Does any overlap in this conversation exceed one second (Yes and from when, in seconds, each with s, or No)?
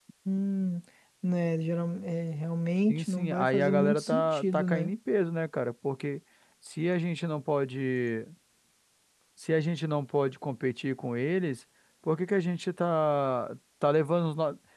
Yes, from 2.9 s